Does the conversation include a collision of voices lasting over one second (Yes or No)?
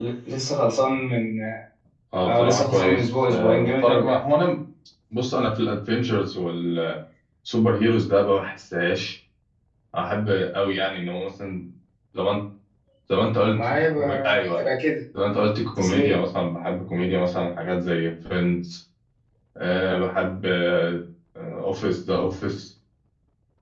Yes